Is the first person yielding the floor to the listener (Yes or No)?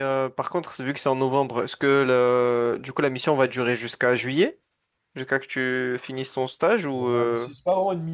Yes